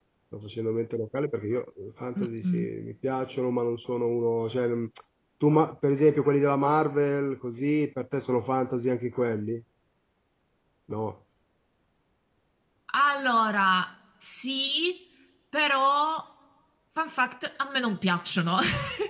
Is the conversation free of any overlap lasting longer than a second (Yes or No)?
Yes